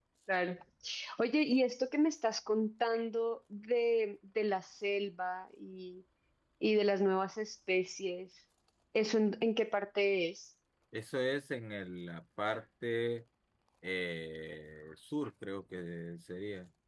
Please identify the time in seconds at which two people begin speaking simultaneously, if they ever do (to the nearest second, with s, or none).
none